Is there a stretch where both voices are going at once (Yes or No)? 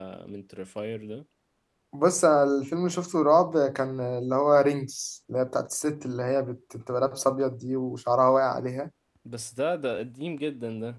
No